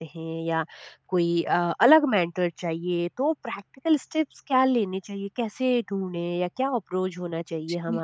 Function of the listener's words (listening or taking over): taking over